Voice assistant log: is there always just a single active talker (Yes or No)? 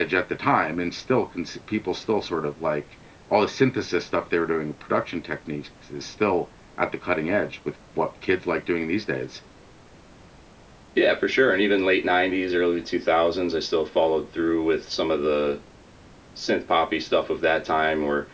Yes